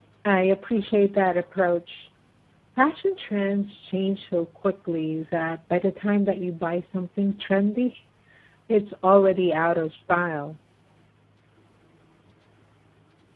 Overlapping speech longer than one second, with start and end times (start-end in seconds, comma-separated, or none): none